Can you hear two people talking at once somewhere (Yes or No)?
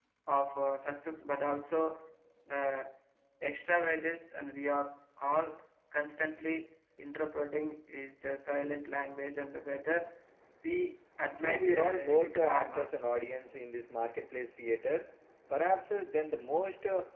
Yes